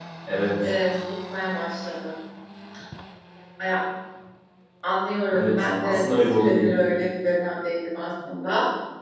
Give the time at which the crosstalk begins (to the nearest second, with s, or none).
5 s